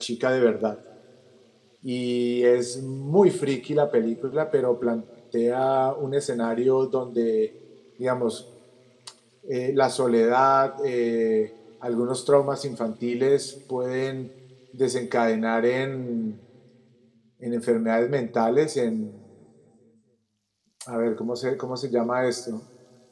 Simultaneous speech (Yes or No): No